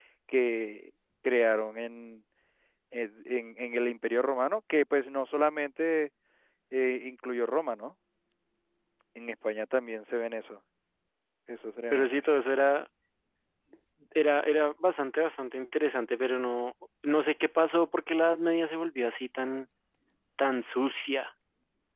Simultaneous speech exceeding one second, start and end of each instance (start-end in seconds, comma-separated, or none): none